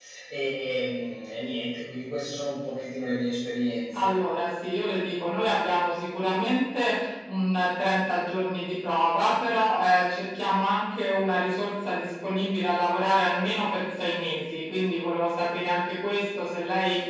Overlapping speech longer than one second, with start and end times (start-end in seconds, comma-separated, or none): none